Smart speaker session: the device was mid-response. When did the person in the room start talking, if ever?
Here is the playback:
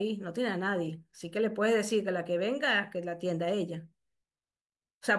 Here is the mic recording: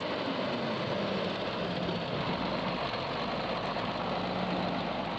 none

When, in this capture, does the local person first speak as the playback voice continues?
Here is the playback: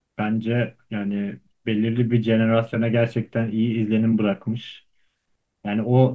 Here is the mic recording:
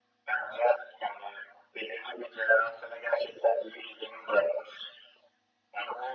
none

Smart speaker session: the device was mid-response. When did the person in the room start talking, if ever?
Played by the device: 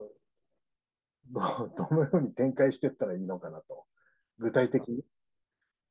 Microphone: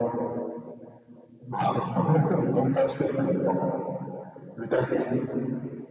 none

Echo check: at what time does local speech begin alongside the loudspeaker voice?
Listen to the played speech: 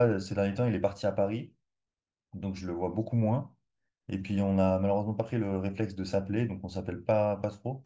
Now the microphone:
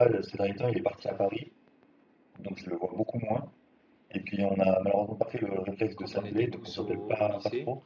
6.0 s

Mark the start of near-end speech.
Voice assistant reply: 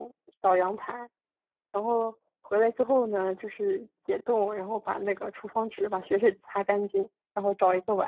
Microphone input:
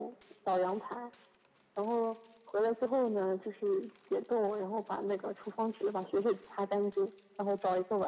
none

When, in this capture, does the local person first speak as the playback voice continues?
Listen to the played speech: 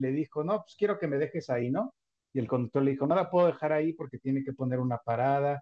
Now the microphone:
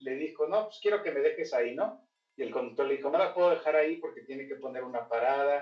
none

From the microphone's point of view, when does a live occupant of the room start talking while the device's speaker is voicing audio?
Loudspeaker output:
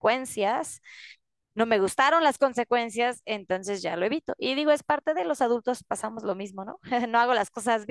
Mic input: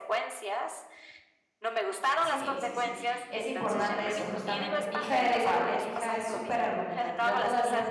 2.2 s

